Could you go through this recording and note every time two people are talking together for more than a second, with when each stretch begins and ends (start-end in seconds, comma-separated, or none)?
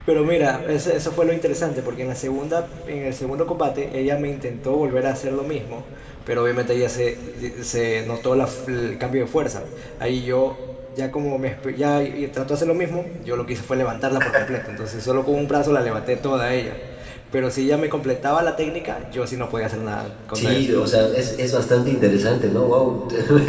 none